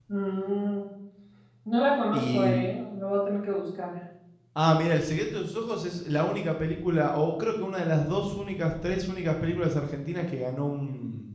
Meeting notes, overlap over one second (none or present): none